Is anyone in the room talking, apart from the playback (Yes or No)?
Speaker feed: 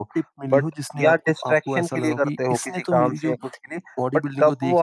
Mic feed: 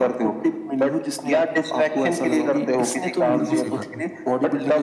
Yes